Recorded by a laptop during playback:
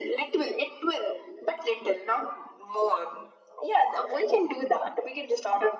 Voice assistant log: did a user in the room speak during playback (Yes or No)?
No